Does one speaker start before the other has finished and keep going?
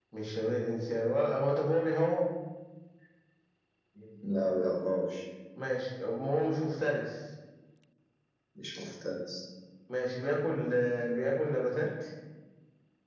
No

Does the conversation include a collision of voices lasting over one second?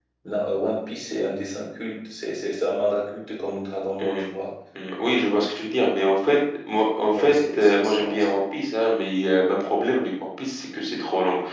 Yes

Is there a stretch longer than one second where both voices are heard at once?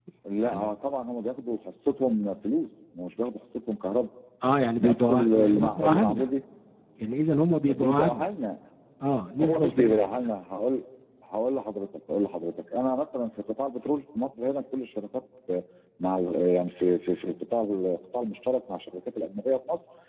Yes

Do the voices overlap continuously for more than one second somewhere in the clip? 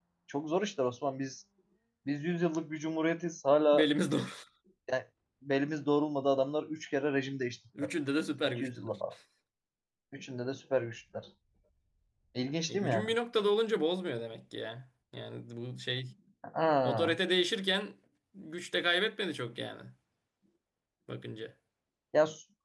No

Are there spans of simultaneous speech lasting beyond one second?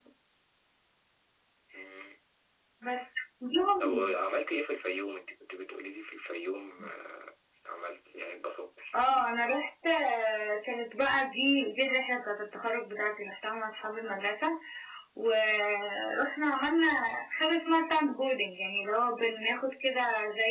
No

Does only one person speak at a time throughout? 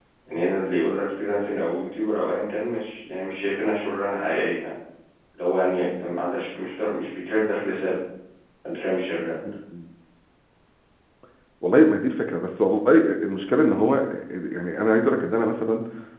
Yes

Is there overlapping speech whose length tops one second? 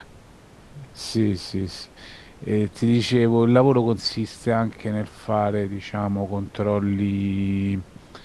No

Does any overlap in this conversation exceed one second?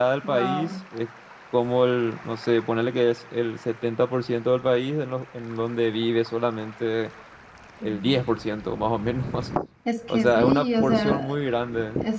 Yes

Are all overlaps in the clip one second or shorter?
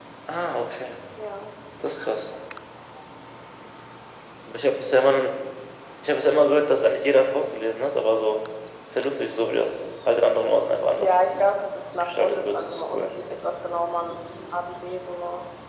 No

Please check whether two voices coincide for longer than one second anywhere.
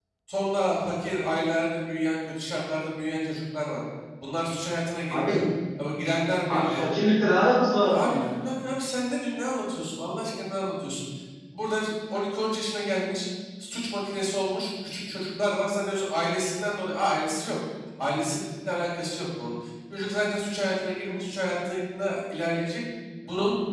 No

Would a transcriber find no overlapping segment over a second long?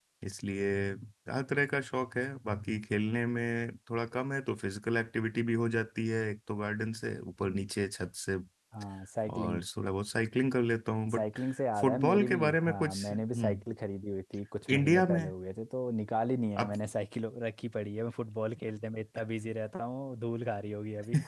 No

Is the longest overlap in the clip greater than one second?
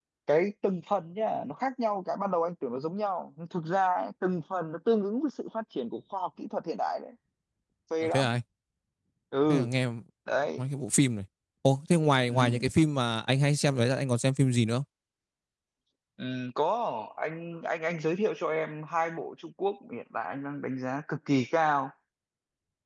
No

